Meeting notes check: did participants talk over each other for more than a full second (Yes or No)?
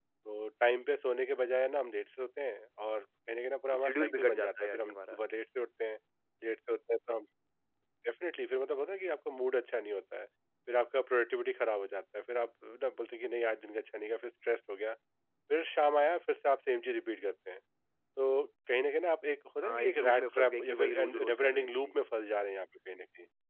Yes